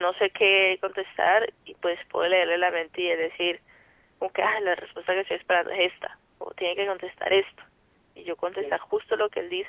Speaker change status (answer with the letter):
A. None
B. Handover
A